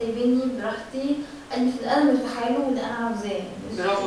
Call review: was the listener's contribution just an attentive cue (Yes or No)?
No